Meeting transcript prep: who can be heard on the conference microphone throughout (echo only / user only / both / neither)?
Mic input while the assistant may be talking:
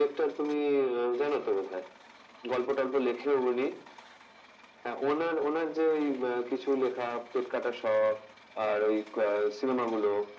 echo only